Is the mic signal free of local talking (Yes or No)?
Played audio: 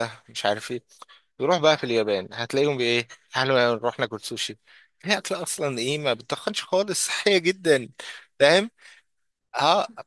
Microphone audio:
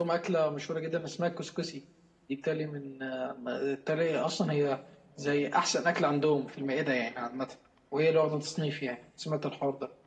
No